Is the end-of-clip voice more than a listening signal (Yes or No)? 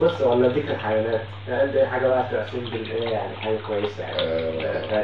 Yes